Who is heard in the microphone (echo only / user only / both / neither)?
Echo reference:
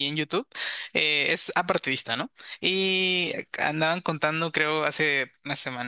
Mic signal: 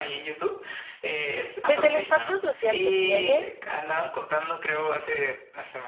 both